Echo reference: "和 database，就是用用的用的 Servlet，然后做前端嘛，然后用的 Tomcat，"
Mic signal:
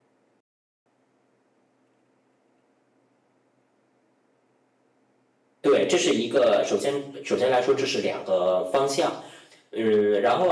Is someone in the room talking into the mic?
Yes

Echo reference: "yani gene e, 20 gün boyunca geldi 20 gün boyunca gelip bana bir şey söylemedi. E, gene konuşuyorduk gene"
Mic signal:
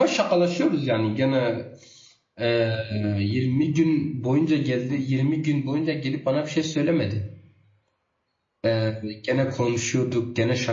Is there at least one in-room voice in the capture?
No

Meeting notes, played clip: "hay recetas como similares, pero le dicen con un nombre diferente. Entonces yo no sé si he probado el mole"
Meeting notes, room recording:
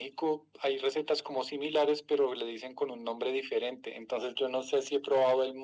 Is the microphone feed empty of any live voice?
Yes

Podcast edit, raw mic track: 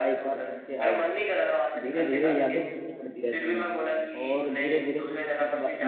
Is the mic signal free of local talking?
No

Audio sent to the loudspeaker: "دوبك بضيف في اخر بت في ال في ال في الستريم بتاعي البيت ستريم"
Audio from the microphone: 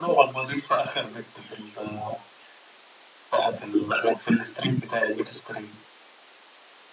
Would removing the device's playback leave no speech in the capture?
Yes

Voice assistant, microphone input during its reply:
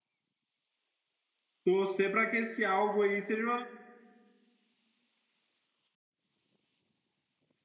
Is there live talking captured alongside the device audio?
Yes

